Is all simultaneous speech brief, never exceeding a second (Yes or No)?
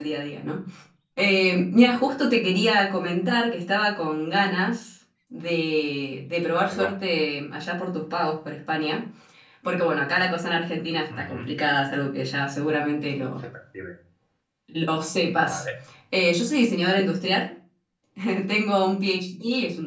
Yes